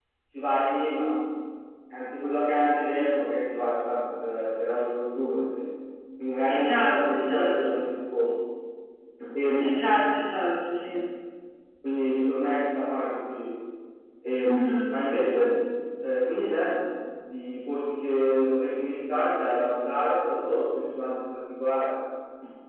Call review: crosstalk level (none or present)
present